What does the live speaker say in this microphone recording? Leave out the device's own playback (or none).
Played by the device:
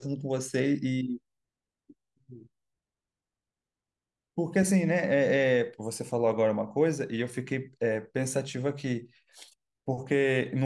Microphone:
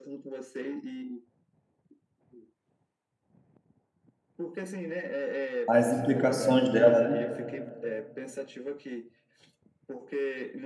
As implicações dela, né?